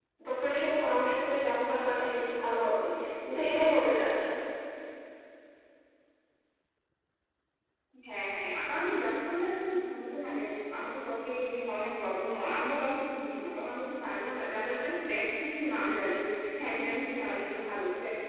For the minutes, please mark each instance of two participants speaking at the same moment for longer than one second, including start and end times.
none

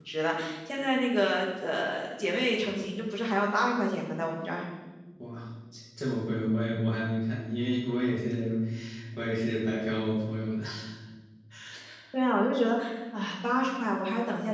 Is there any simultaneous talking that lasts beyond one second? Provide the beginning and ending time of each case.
none

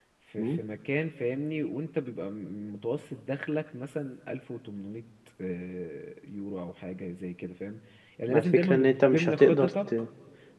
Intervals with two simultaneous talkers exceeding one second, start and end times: 8.3-9.9

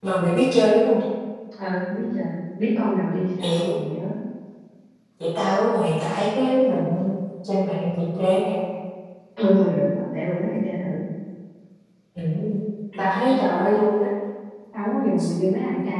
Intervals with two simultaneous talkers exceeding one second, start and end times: none

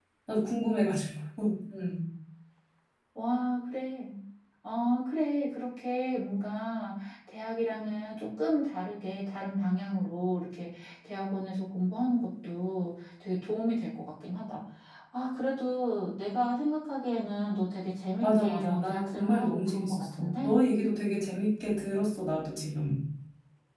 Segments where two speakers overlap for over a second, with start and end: 18.2-20.5

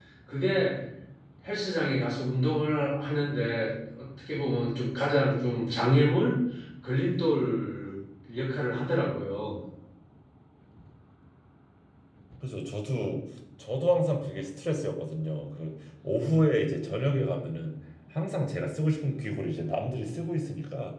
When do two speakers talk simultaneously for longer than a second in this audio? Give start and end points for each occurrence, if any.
none

